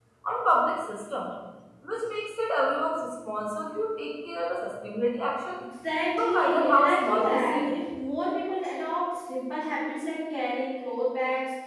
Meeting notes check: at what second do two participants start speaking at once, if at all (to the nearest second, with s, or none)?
6 s